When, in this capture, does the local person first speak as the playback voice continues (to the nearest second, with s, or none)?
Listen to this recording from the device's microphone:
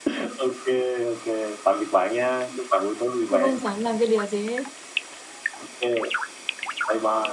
3 s